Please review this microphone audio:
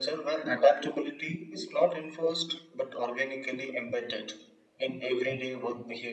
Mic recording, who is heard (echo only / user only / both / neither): echo only